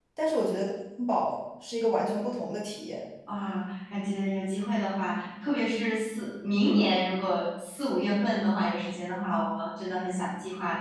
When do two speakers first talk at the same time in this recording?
none

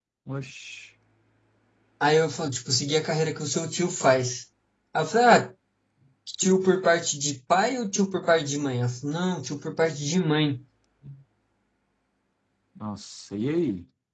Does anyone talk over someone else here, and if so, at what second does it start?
none

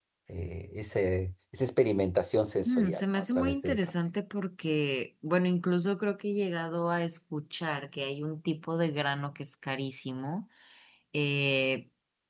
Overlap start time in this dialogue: 2.6 s

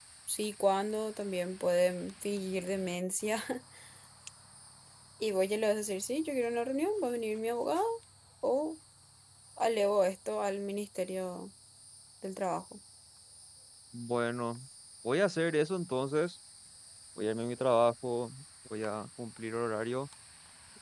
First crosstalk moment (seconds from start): none

